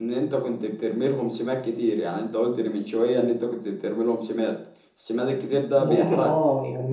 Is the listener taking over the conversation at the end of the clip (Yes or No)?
Yes